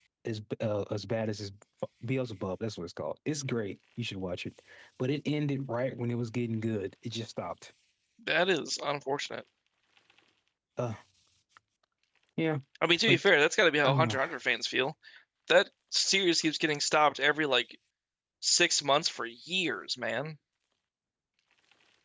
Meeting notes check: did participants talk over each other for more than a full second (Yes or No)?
No